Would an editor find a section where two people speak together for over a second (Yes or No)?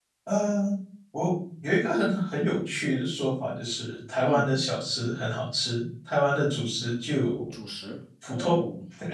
No